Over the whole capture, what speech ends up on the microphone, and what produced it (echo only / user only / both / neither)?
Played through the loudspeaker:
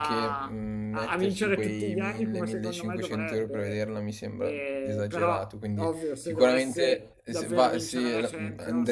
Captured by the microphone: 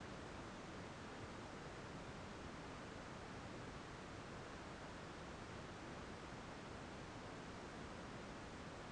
neither